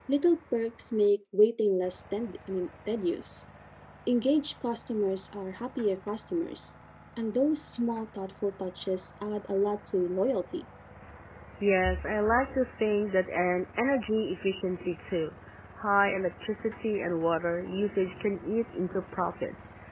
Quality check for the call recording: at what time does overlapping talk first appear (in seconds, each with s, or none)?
none